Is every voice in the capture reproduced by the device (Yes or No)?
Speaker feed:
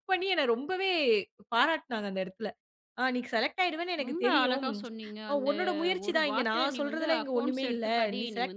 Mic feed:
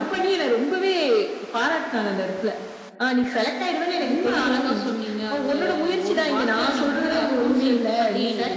Yes